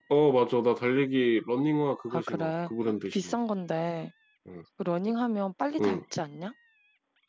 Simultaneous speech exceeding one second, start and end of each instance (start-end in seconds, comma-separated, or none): 2.1-3.3